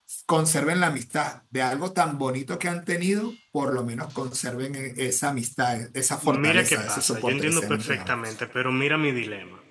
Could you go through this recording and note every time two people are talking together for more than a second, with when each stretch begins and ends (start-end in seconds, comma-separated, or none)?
6.2-8.3